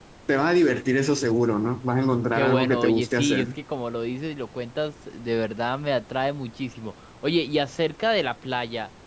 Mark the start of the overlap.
2 s

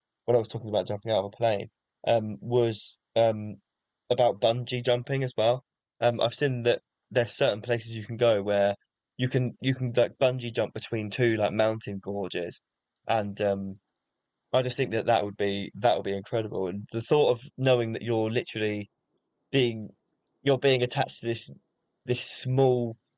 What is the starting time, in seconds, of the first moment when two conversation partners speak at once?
none

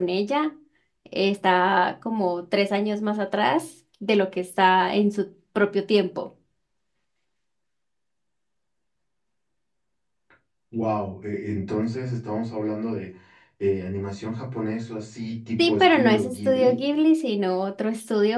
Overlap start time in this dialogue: 16 s

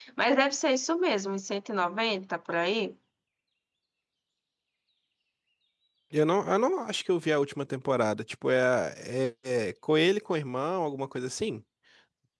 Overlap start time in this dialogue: none

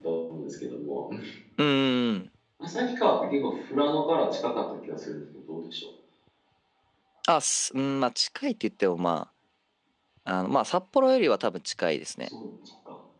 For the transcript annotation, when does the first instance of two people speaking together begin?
none

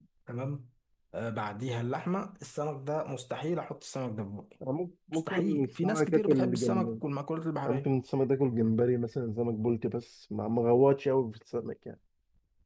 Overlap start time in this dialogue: 5 s

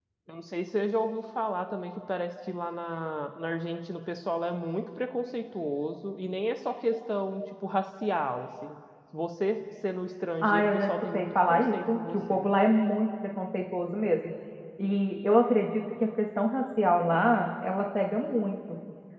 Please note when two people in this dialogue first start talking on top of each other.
10 s

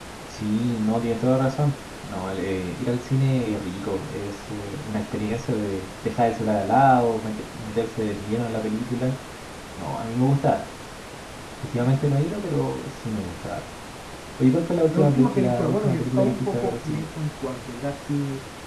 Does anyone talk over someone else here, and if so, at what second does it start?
15 s

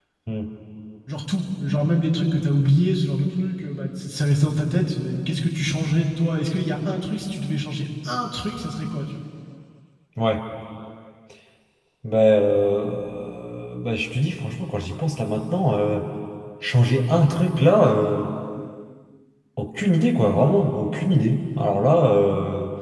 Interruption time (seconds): none

